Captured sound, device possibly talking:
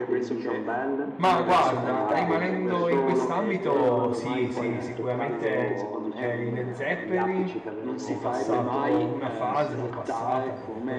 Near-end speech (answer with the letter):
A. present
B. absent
A